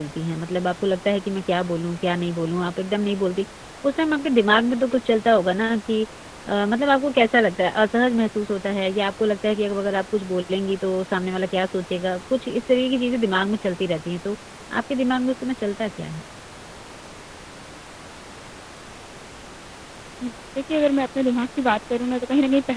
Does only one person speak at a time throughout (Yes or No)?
Yes